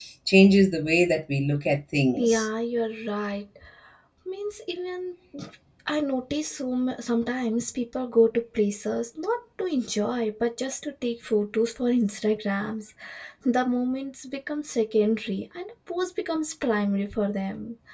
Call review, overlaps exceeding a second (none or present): none